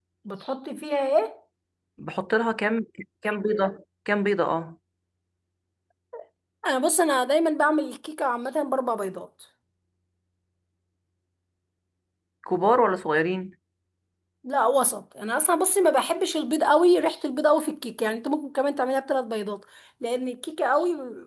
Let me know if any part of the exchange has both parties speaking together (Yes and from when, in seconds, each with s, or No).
No